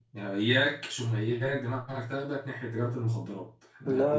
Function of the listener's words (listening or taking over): listening